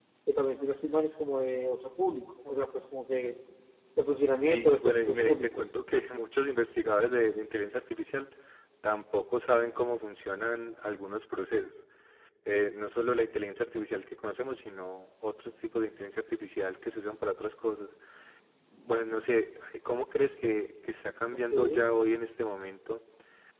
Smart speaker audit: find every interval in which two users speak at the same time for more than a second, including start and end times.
4.4-5.7

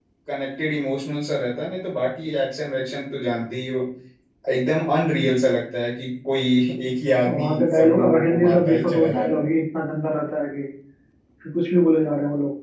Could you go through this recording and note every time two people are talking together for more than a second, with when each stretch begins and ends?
7.3-9.5

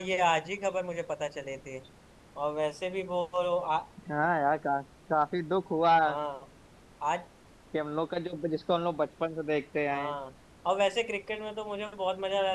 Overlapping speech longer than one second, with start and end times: none

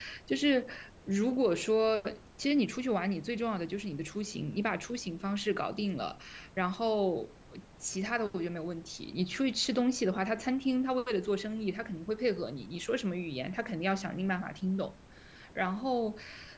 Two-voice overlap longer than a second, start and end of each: none

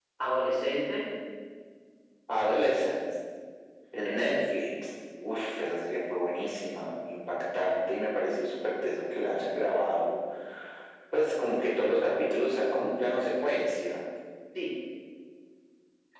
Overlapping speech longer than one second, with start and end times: none

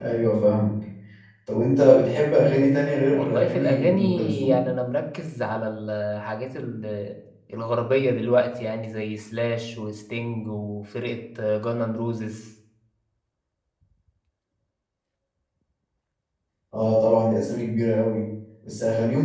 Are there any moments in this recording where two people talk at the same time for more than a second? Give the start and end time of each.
3.1-4.6

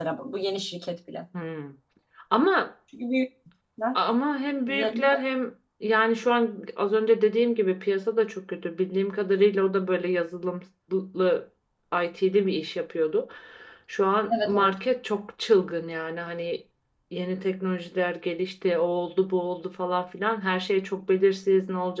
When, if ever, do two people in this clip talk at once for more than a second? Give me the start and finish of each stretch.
none

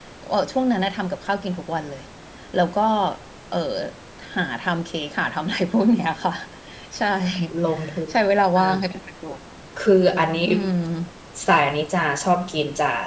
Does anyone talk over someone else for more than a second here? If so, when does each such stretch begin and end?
none

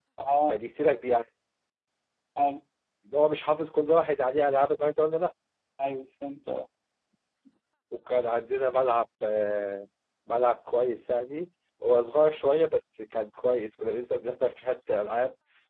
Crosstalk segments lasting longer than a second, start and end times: none

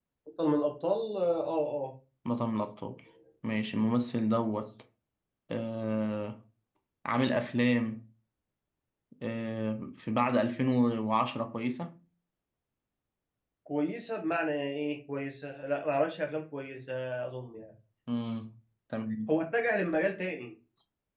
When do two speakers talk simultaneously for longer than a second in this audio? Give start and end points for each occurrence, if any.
none

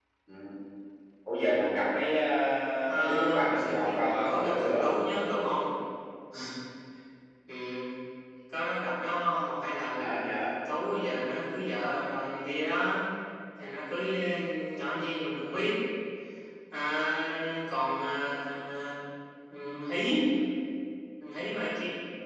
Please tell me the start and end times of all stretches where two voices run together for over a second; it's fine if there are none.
2.9-5.0

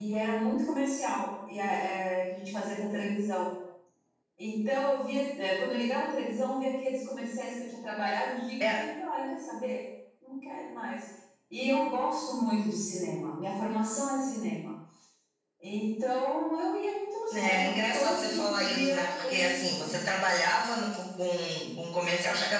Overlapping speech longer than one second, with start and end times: 17.3-20.0

